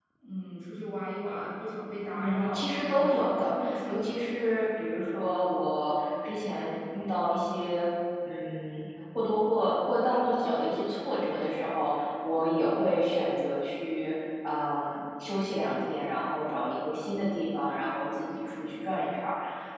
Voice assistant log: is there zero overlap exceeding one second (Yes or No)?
No